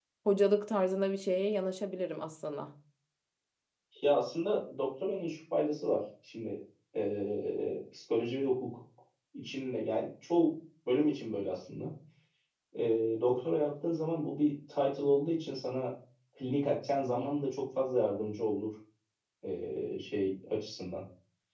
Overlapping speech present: No

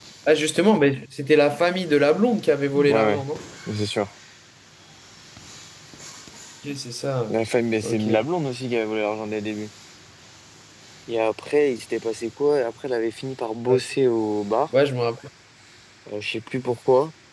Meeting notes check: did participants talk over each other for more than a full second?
No

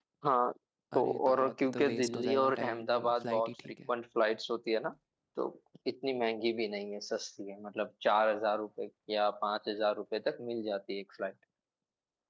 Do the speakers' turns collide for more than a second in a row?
Yes, from 1.0 s

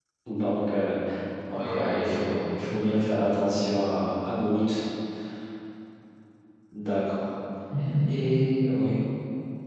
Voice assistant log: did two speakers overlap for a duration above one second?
Yes, from 1.5 s

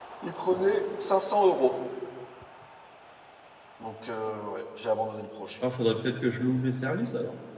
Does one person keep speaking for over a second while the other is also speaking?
No

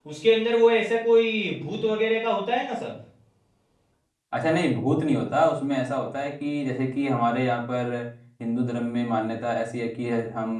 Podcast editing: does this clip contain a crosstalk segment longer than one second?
No

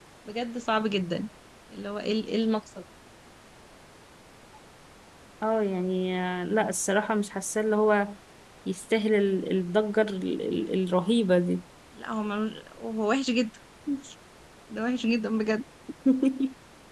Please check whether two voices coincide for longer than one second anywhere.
No

